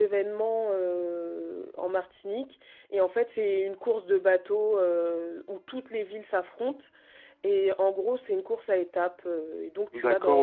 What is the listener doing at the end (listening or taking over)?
taking over